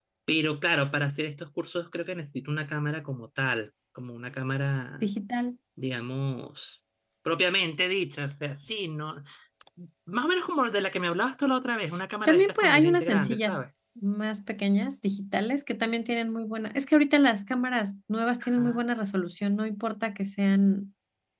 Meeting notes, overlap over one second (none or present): present